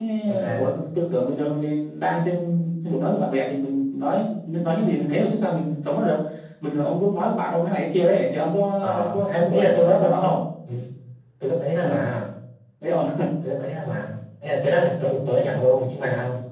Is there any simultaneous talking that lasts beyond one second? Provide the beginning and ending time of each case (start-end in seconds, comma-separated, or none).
8.8-10.4